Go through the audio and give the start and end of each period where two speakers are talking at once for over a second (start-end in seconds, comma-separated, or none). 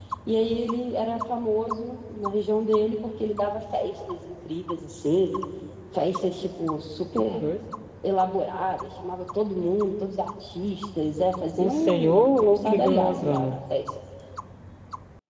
11.6-13.6